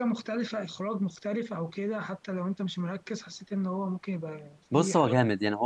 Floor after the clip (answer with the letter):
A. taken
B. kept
A